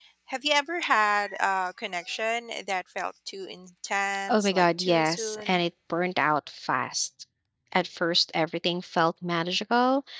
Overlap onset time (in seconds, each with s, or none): 4.3 s